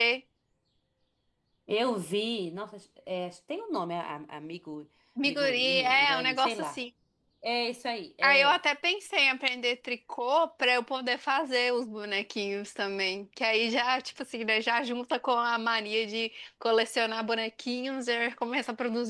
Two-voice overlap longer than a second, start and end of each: 5.3-6.8

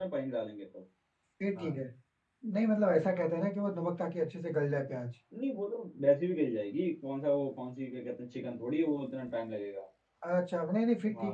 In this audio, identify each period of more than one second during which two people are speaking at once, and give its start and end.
none

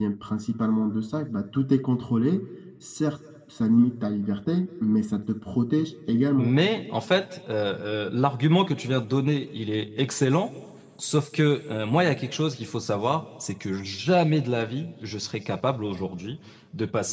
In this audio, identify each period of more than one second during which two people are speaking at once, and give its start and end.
none

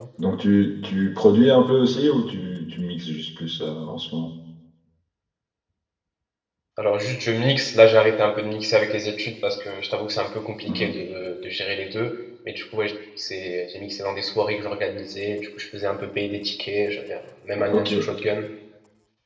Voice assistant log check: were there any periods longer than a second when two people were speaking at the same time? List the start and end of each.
none

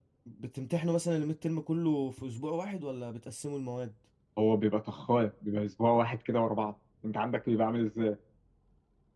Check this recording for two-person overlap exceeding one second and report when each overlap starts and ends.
none

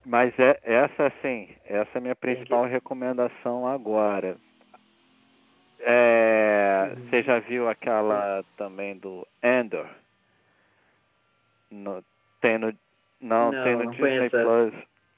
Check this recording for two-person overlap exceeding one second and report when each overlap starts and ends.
13.4-14.7

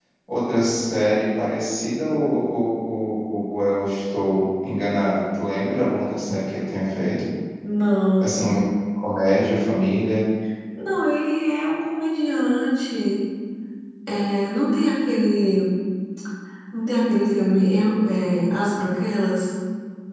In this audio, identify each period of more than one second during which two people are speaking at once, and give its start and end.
none

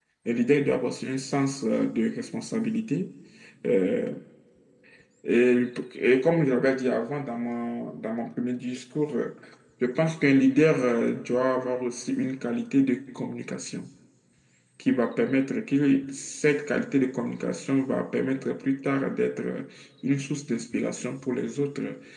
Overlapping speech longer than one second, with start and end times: none

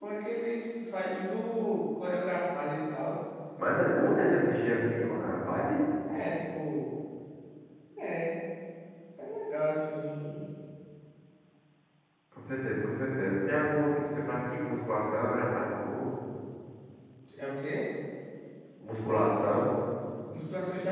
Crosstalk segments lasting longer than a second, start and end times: none

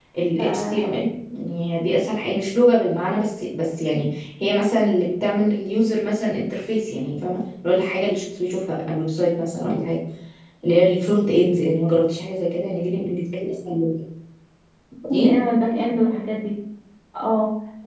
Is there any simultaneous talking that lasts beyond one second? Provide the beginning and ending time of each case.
none

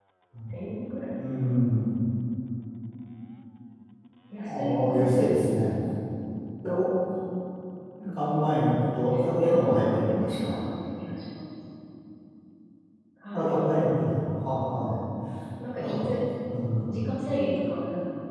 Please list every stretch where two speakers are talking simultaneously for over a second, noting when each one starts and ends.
4.4-5.7, 9.4-10.6

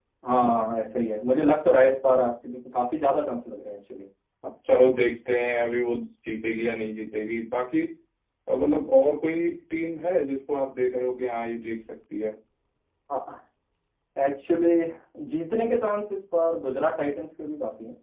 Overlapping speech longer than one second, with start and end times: none

